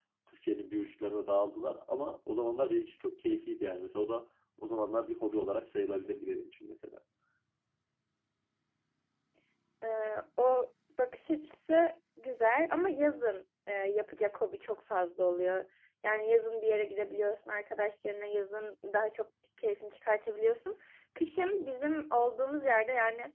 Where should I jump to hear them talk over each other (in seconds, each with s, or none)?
none